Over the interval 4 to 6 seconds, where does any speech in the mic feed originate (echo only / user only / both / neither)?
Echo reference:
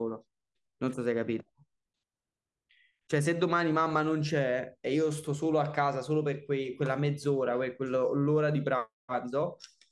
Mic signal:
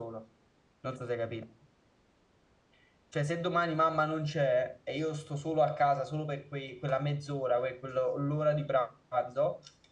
echo only